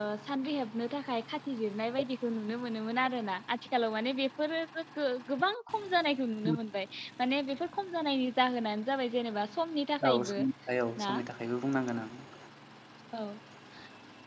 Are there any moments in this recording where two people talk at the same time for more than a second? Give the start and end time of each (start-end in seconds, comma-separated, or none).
none